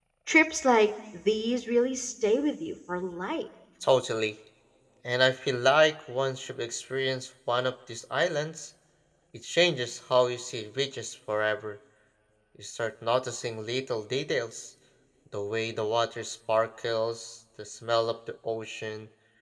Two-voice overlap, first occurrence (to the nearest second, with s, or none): none